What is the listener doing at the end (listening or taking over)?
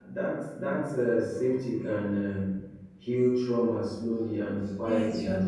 taking over